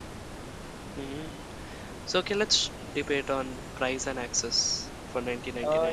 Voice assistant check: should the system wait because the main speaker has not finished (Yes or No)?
No